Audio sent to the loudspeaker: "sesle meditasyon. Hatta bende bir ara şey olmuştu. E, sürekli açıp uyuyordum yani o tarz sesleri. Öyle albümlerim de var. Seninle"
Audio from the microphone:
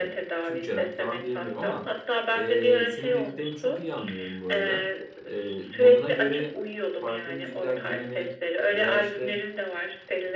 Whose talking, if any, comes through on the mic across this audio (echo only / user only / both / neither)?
both